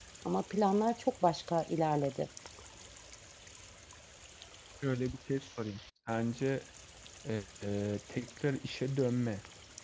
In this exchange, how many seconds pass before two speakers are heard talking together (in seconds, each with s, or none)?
none